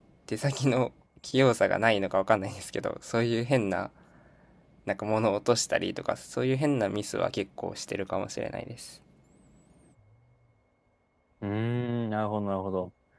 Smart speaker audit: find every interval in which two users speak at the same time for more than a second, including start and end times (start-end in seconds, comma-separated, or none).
none